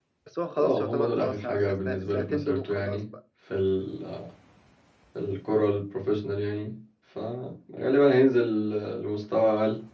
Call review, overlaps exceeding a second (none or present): present